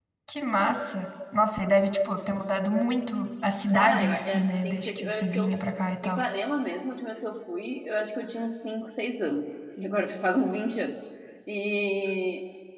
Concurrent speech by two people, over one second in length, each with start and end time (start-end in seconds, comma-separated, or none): 3.7-5.5